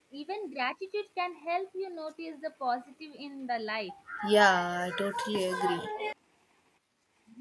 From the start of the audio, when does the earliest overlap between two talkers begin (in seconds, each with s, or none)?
none